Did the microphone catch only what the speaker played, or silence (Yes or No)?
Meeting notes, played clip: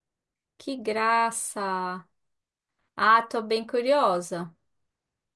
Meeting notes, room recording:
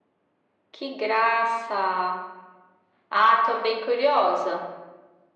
Yes